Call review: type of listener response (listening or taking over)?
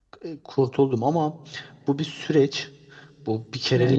listening